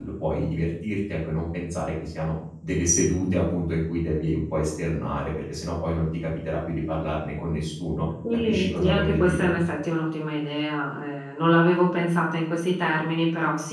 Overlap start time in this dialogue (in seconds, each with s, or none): 8.2 s